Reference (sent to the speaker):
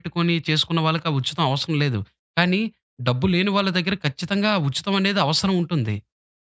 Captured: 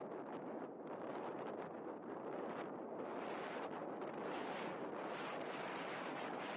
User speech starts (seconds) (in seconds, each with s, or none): none